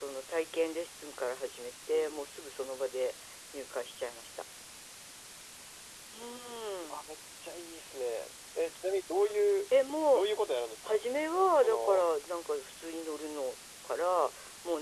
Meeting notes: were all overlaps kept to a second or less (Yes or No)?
Yes